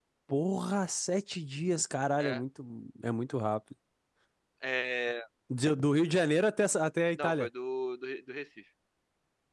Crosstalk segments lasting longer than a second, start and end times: none

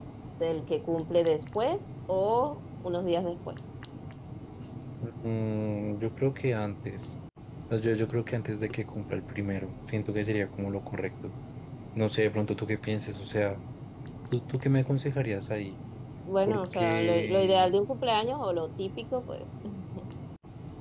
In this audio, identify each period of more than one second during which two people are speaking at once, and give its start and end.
16.5-17.8

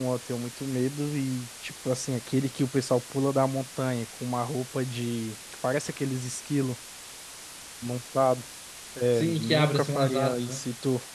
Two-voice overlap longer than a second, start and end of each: 9.1-10.6

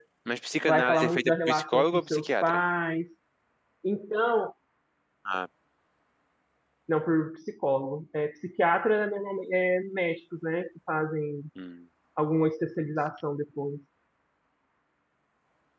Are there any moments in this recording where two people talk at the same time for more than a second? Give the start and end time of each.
0.6-2.6

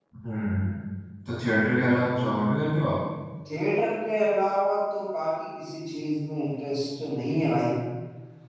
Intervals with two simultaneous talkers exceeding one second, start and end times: none

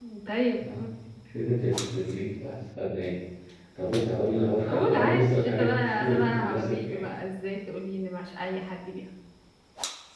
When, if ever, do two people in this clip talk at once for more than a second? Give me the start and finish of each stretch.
4.9-7.0

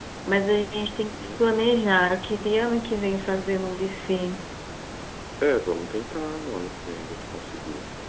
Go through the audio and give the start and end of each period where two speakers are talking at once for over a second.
none

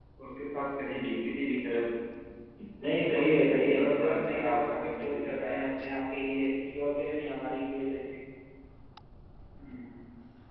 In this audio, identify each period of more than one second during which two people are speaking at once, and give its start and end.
3.1-5.6

